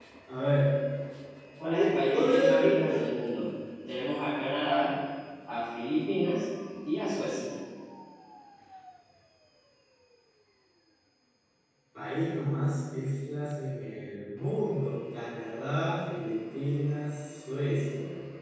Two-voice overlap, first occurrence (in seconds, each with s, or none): 1.7 s